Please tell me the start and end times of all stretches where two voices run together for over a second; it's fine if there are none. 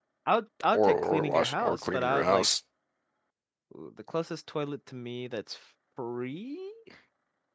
0.7-2.4

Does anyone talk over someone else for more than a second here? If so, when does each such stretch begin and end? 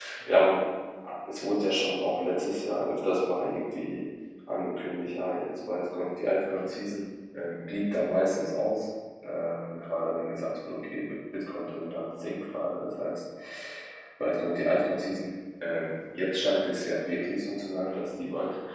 none

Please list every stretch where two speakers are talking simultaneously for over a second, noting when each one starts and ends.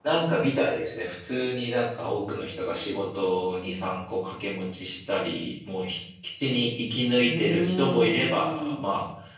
7.3-8.9

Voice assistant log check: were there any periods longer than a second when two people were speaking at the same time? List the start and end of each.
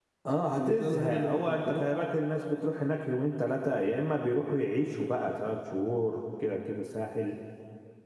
0.5-2.0

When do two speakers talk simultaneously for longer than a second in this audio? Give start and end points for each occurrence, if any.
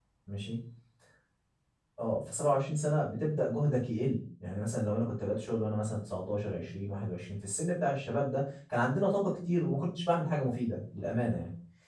none

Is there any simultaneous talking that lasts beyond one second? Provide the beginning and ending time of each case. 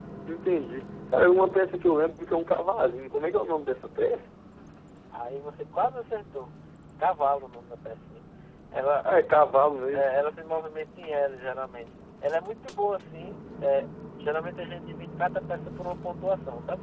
none

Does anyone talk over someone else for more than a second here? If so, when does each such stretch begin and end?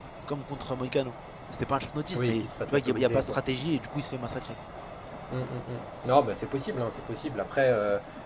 2.2-3.4

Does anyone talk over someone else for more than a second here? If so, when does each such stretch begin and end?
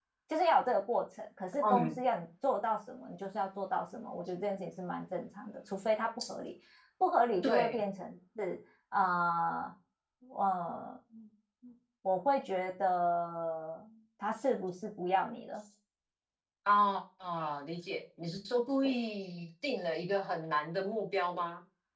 none

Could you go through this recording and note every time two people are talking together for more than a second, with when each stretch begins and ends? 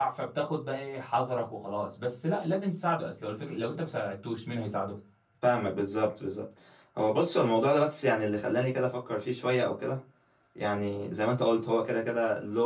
none

